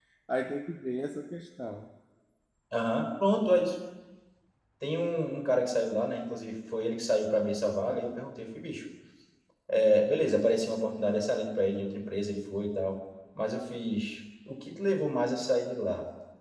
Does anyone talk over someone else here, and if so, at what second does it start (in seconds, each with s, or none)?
none